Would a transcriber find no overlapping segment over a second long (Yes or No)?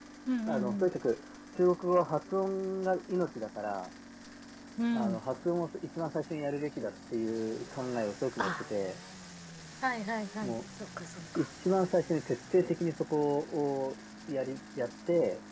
Yes